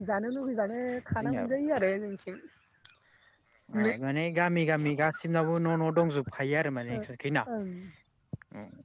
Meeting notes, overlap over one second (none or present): none